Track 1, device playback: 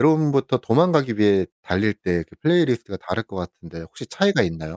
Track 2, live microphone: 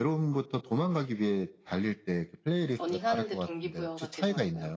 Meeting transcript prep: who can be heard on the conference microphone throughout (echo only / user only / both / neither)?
both